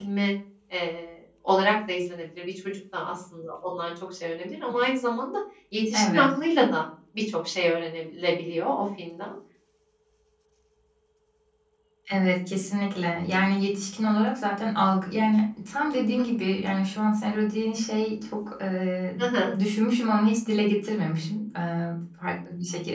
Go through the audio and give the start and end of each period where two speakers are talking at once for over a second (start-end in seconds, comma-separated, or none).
none